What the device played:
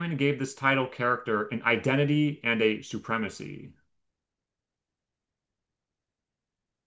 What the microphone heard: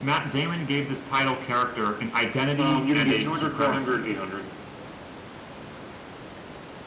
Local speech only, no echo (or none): Um, you can do 200, 400, 800.